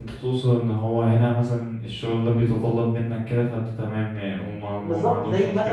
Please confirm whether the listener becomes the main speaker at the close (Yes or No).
Yes